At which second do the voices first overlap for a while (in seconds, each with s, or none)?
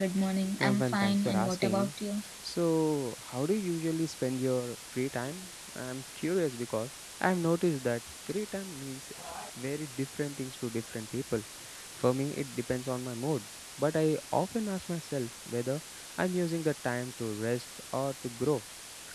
0.6 s